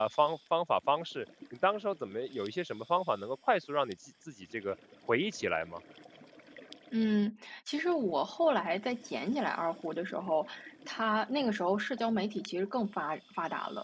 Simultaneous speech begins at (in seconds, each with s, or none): none